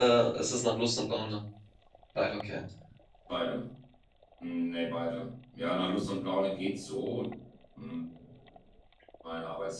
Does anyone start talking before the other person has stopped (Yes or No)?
No